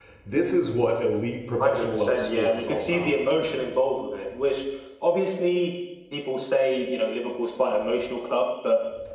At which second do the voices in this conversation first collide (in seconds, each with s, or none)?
1.6 s